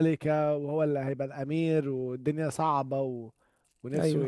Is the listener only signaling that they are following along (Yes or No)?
No